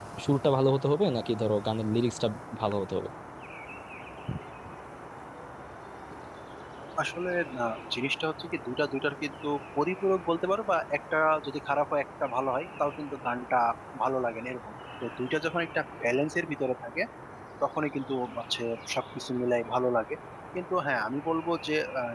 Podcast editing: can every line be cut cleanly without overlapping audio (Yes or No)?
Yes